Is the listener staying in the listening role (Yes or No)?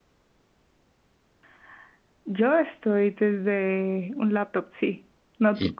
No